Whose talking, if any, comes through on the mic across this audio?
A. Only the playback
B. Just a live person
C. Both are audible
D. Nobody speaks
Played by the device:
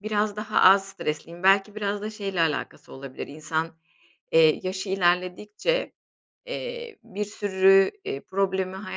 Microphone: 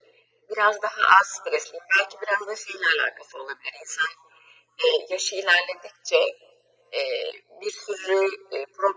A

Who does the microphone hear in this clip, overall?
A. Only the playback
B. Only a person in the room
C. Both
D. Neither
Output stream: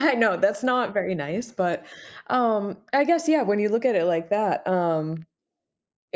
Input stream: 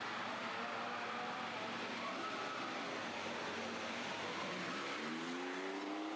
D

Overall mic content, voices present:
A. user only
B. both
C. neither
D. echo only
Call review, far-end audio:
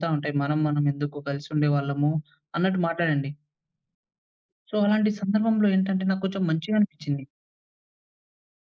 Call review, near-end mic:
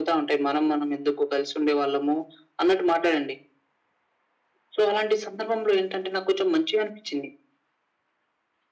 D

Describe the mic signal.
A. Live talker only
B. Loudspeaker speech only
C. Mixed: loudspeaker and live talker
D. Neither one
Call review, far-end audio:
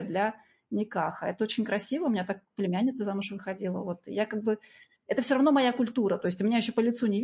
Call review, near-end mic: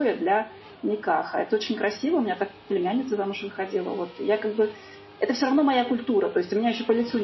B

